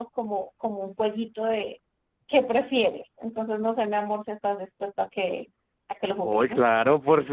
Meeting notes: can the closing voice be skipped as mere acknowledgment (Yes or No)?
No